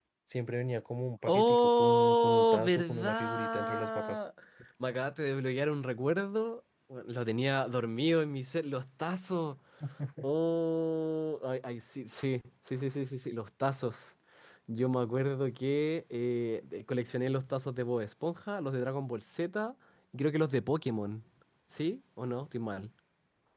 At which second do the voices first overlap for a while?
1.3 s

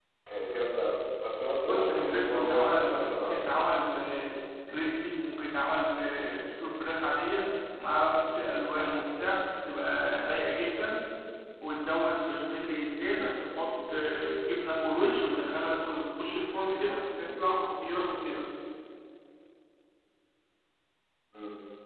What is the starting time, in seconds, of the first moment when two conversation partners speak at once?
1.6 s

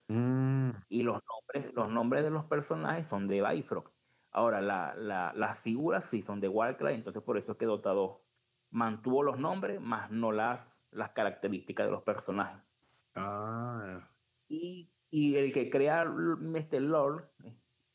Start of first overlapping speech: none

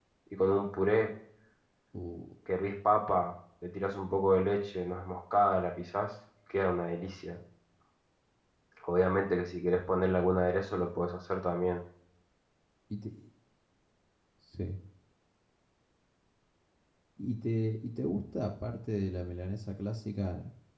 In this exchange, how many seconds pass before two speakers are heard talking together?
none

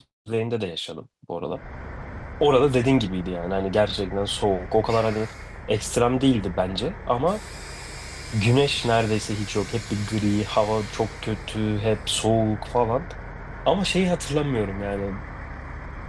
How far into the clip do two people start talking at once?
none

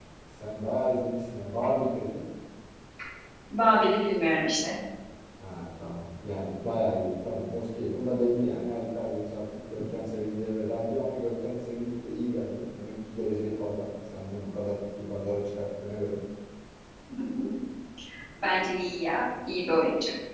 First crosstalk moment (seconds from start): none

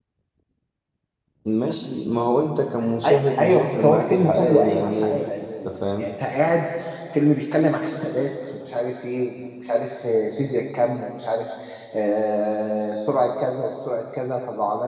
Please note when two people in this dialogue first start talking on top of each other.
3.0 s

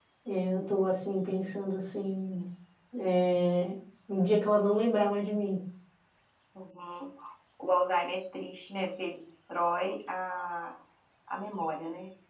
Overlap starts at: none

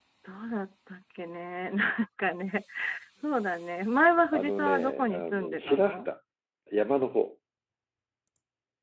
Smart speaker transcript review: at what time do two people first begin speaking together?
4.3 s

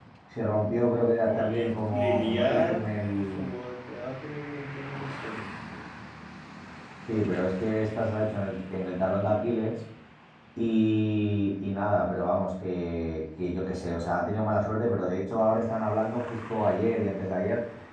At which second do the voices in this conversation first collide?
1.3 s

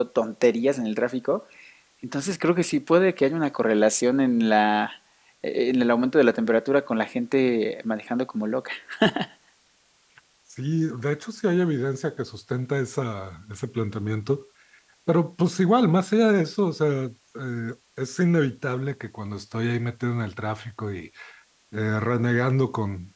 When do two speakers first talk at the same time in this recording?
none

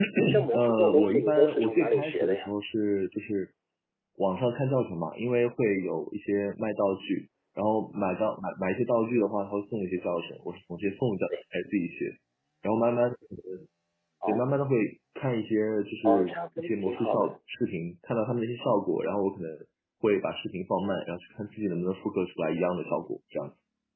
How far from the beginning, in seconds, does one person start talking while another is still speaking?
0.5 s

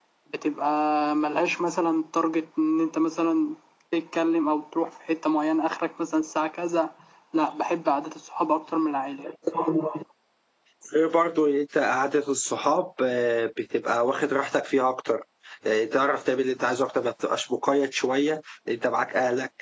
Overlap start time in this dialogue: none

